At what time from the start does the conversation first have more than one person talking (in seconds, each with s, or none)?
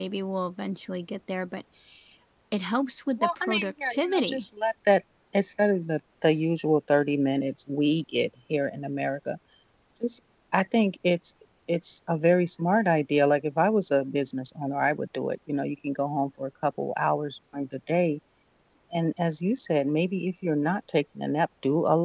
3.2 s